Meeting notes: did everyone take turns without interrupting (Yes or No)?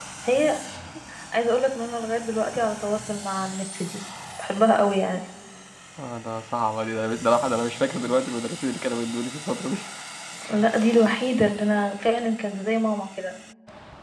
Yes